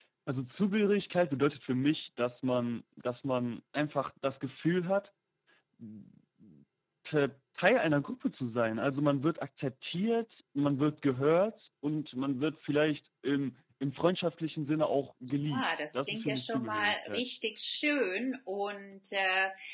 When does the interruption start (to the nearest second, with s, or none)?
16 s